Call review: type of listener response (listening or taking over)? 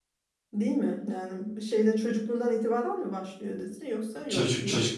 taking over